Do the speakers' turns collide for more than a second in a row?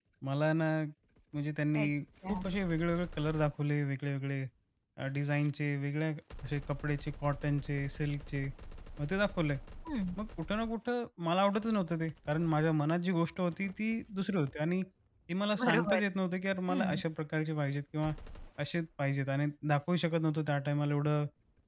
No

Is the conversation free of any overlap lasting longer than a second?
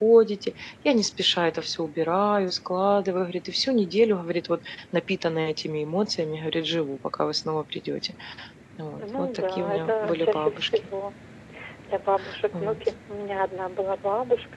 No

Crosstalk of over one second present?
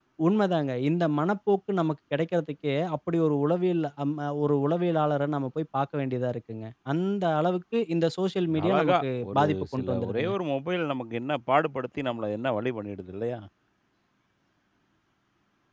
Yes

